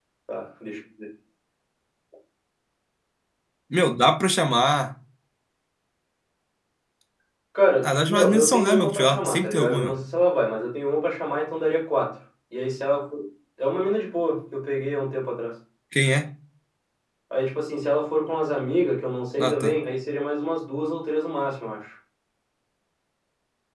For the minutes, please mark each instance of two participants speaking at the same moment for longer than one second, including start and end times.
7.8-9.9

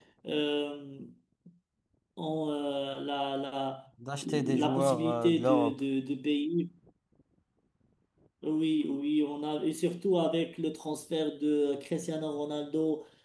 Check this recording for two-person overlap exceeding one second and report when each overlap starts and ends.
4.2-5.8

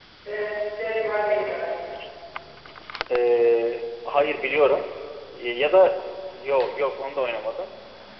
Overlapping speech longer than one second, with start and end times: none

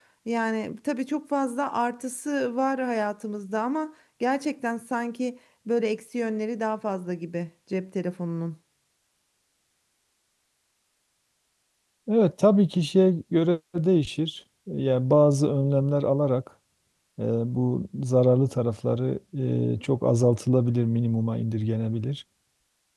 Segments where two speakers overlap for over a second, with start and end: none

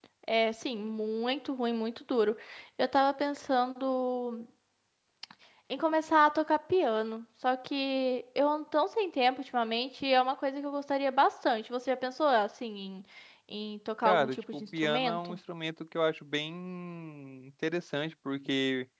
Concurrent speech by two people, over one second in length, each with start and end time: 14.0-15.4

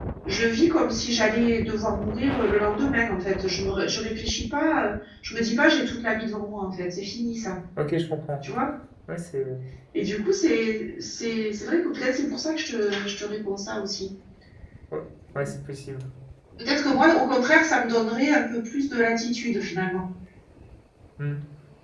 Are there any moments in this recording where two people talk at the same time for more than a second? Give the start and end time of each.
none

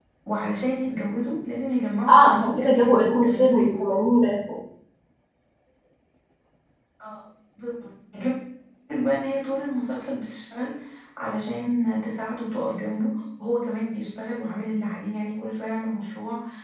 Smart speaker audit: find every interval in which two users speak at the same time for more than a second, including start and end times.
2.1-3.8

